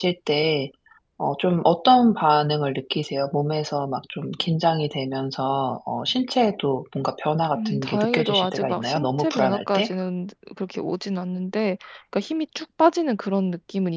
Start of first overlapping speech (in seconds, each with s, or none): 7.5 s